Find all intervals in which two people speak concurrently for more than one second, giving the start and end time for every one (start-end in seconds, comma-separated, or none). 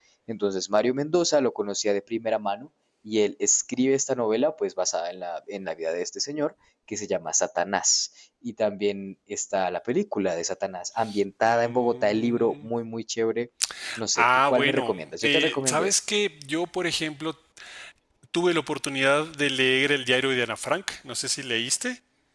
11.4-12.7, 14.2-16.0